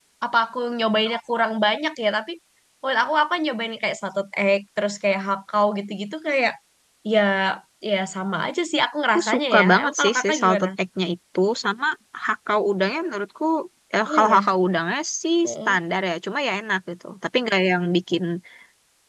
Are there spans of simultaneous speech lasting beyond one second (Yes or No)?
Yes